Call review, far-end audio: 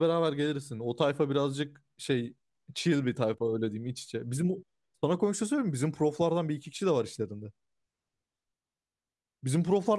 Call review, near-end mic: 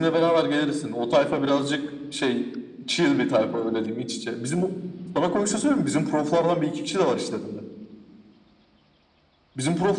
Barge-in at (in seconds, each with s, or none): none